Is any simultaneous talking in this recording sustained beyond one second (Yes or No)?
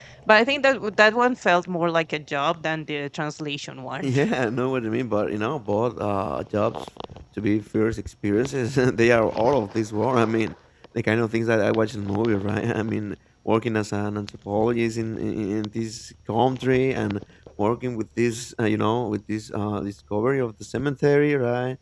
No